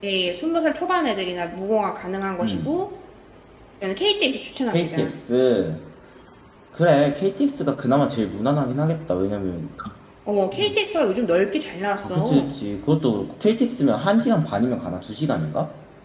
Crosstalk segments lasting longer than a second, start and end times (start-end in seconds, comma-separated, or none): none